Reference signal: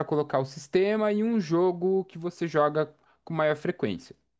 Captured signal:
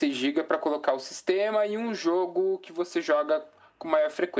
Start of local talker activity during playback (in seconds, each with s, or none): none